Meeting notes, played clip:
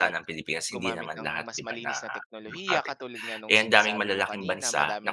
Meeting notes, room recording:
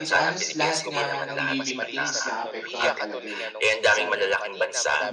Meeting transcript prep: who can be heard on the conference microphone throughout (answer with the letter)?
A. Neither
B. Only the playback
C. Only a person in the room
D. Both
D